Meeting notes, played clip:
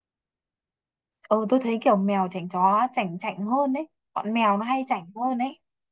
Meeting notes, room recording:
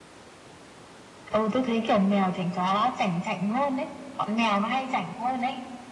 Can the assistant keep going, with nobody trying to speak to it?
Yes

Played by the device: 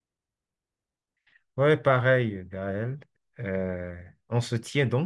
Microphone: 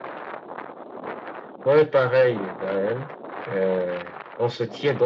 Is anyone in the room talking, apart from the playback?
No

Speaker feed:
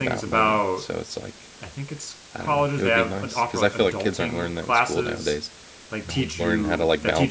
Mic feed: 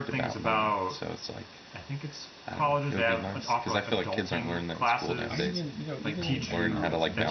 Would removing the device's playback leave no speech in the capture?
No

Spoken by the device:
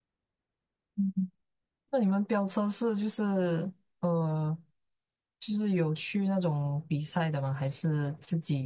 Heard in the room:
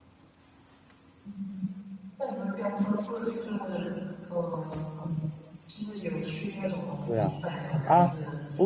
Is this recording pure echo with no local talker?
No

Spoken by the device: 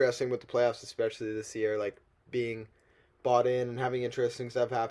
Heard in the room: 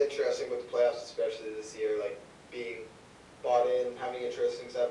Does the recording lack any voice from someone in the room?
Yes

